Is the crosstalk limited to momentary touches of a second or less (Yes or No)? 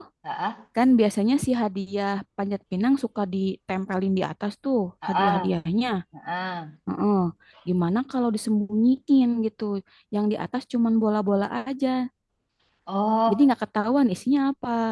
Yes